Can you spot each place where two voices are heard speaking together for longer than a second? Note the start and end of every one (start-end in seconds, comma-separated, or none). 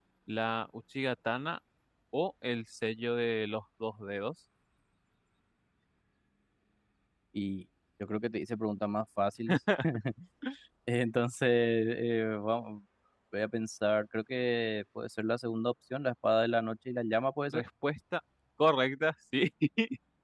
none